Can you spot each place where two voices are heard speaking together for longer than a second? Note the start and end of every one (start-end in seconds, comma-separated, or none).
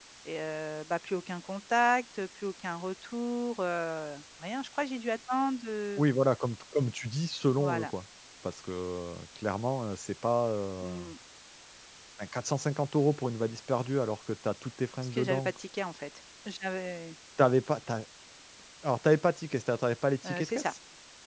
none